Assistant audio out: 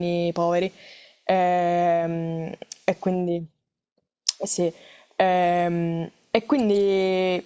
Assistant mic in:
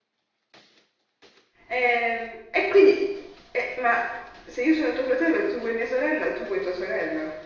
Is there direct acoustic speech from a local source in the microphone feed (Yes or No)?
Yes